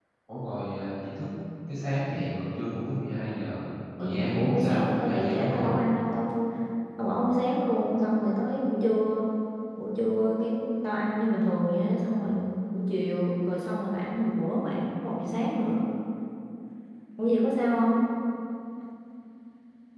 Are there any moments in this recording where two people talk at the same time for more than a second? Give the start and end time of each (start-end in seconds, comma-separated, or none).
4.0-5.8